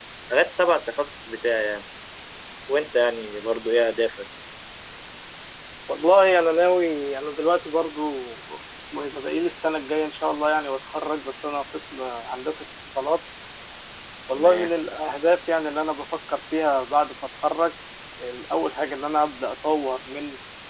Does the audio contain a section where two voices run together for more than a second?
No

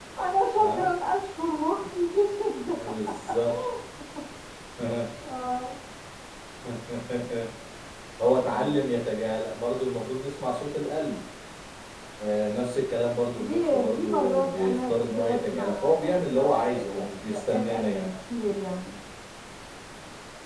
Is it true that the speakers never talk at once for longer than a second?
No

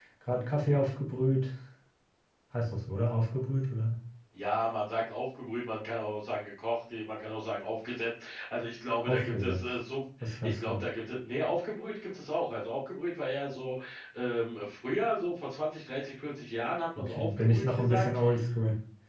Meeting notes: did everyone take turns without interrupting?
No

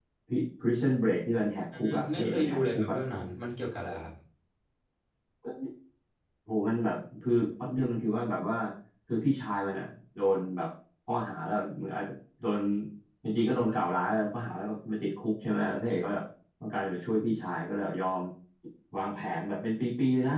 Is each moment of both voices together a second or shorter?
No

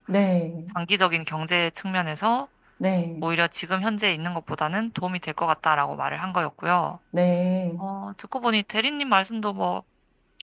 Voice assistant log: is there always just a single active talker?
Yes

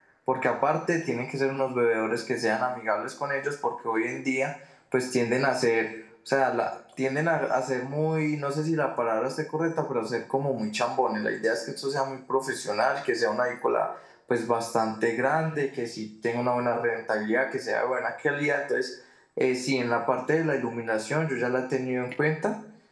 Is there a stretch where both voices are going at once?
No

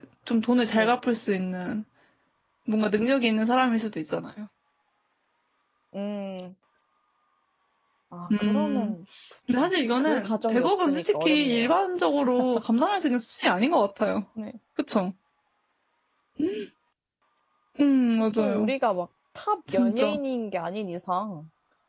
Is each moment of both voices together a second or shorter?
No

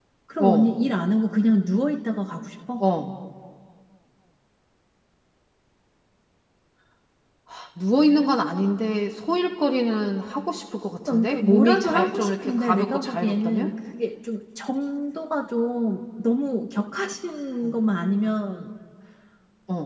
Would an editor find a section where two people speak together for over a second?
Yes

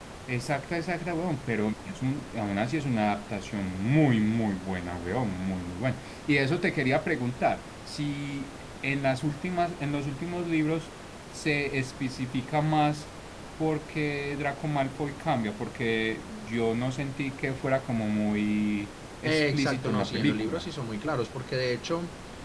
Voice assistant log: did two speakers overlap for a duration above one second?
Yes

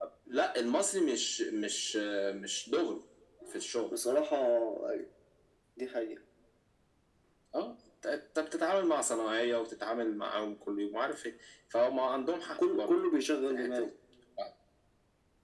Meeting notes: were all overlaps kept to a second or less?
Yes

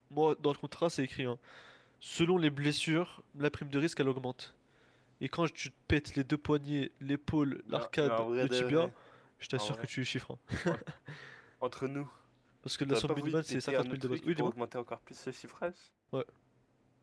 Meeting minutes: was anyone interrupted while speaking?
Yes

